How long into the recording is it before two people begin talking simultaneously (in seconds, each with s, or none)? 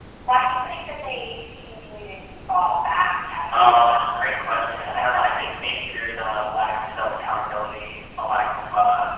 3.5 s